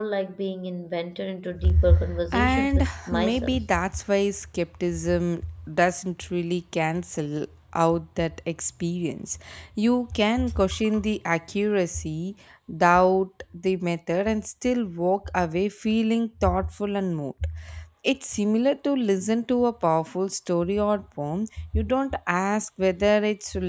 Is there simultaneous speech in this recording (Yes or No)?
Yes